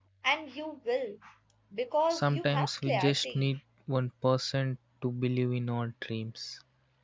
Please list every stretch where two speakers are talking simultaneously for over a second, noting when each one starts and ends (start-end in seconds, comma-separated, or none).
2.1-3.5